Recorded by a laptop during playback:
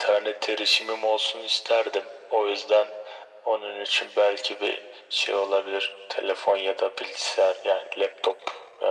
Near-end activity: none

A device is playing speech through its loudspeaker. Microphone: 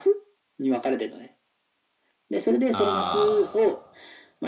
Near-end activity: present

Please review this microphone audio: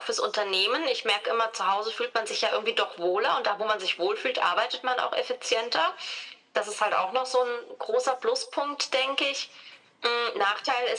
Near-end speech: none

